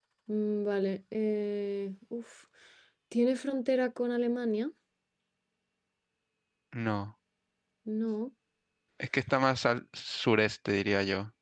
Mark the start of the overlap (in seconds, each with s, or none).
none